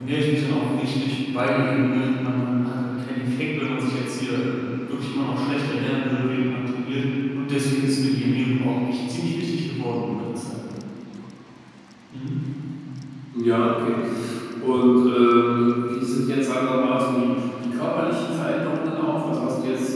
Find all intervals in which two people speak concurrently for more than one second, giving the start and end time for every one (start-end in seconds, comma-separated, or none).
none